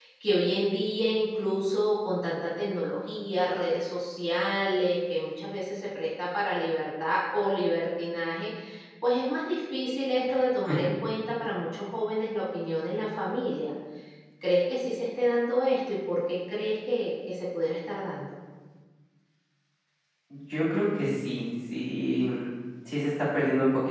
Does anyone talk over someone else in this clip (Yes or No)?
No